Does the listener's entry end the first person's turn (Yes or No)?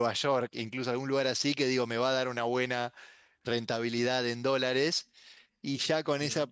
No